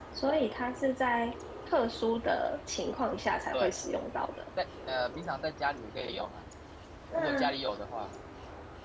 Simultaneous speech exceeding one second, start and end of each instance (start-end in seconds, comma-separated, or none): none